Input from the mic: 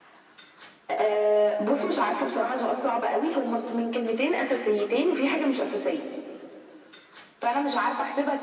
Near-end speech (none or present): none